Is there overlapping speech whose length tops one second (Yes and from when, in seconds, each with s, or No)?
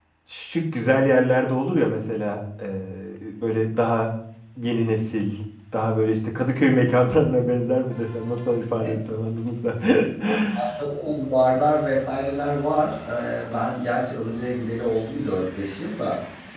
No